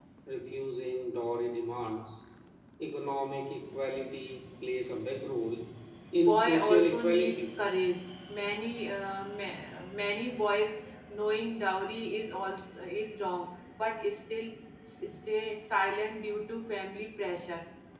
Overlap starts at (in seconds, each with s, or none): 6.3 s